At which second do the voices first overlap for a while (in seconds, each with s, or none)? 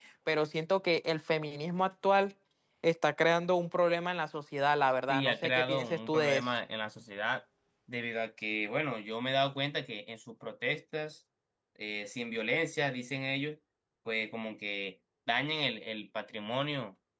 5.1 s